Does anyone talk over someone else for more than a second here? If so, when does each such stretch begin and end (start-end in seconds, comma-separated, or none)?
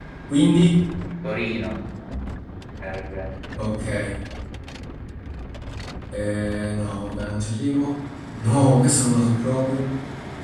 none